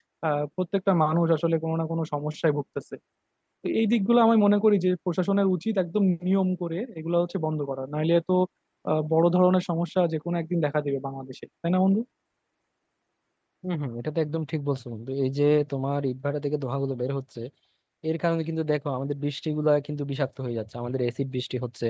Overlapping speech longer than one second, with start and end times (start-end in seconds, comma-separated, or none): none